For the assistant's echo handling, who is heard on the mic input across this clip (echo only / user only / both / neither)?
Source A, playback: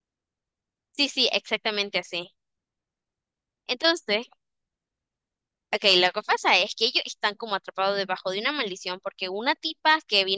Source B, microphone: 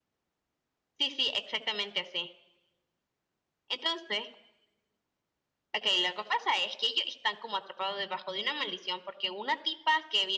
echo only